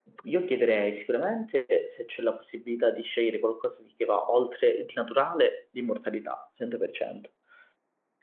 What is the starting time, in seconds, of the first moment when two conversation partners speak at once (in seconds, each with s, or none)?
none